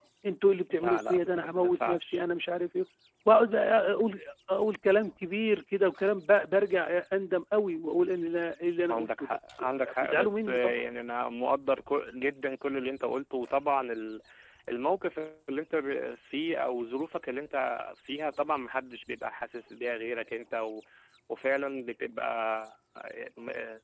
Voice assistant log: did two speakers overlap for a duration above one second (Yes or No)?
Yes